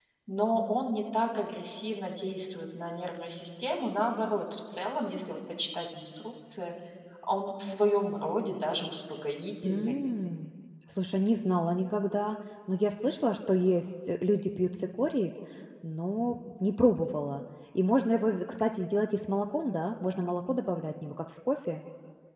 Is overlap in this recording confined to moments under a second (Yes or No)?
Yes